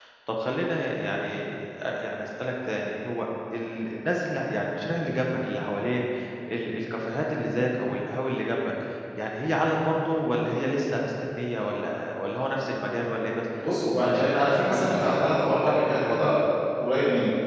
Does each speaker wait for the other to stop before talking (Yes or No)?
No